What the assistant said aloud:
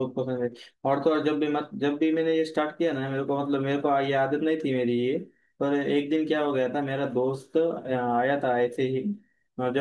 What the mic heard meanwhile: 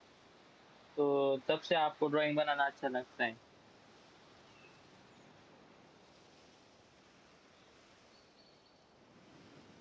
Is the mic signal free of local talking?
No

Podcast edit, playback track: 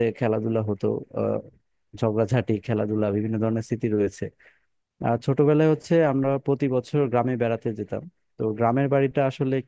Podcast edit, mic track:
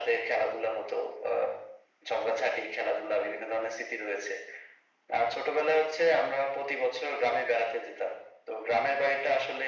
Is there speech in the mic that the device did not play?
No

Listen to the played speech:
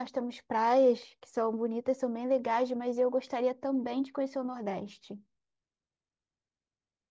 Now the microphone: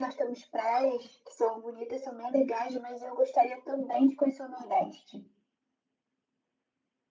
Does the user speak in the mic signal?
No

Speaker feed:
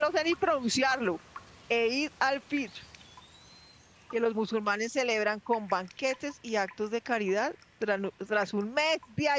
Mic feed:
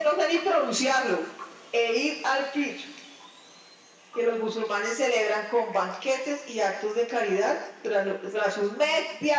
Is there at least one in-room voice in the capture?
No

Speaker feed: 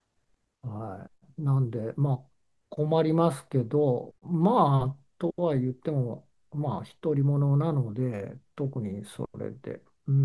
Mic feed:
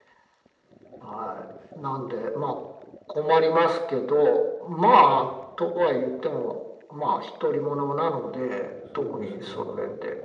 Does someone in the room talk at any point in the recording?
Yes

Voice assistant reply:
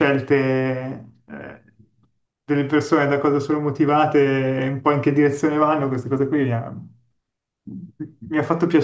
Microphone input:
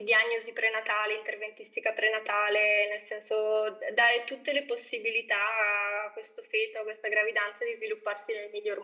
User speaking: Yes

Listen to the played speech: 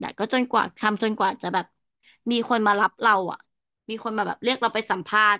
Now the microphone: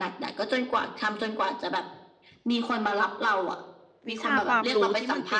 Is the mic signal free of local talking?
No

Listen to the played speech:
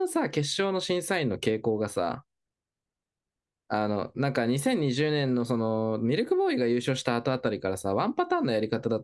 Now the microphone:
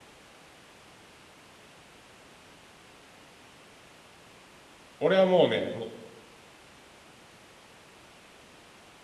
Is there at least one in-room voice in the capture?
Yes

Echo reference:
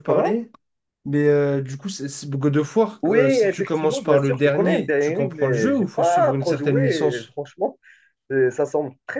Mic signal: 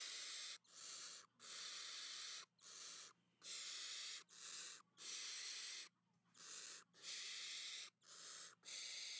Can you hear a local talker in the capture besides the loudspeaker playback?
No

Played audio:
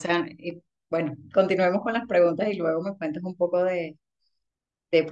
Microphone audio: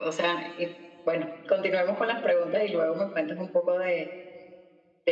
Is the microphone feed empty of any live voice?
Yes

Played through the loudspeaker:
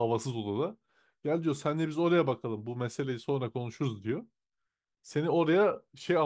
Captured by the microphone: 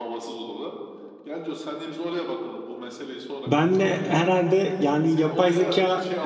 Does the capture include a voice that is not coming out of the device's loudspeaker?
Yes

